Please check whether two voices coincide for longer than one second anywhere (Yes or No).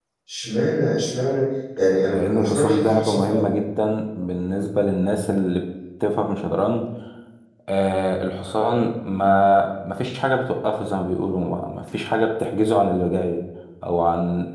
Yes